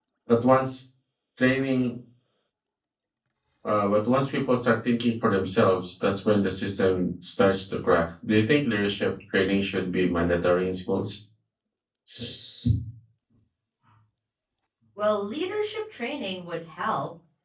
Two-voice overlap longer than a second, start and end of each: none

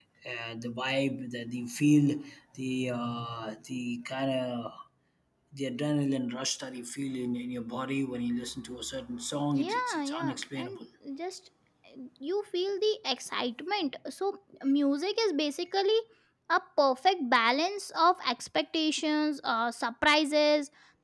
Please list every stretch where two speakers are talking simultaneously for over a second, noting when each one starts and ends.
9.5-10.8

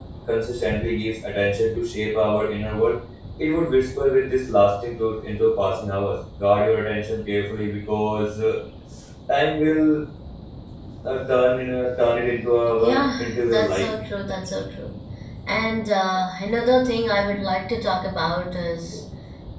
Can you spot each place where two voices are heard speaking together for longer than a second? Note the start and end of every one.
12.8-14.0

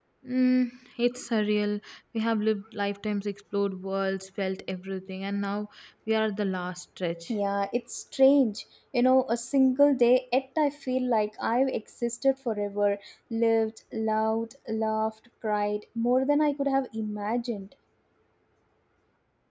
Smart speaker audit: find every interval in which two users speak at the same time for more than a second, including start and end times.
none

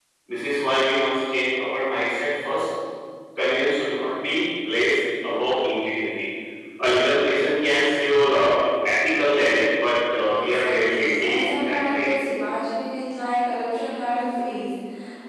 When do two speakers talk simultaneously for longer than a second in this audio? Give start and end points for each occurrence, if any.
10.3-12.1

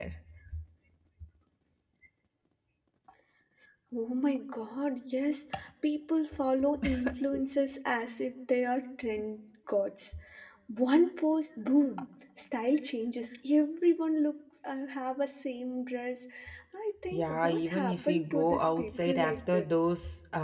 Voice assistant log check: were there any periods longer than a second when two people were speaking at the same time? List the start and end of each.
17.1-19.7

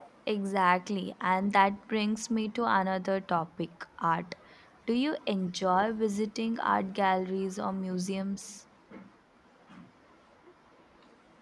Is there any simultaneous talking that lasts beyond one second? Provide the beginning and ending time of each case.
none

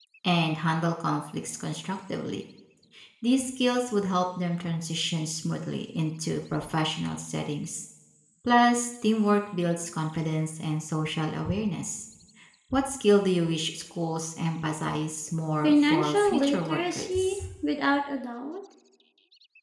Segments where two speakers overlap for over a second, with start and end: 15.6-17.4

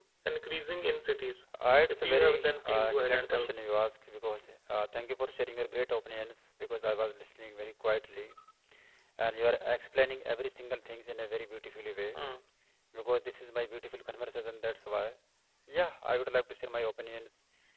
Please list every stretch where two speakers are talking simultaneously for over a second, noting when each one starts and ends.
1.9-3.5

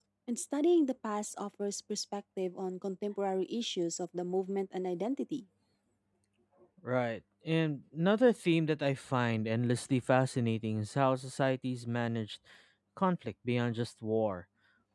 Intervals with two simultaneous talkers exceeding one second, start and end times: none

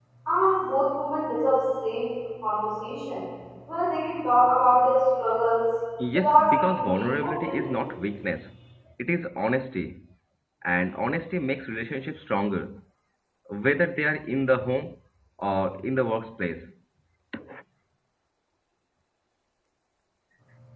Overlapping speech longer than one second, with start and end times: 6.2-7.8

